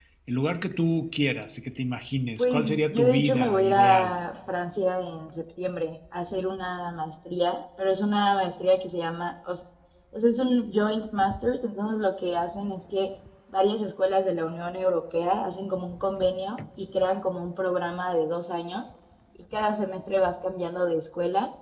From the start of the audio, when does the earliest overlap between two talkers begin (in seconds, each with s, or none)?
2.4 s